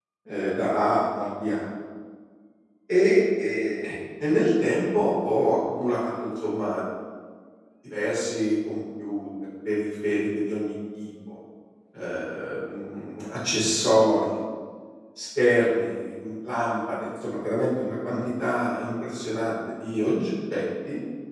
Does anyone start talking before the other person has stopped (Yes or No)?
No